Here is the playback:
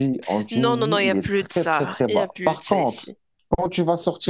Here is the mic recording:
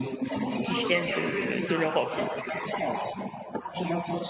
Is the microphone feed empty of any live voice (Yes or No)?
No